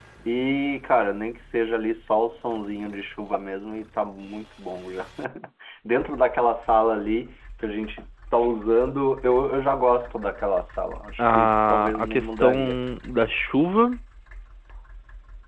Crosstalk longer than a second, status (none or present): present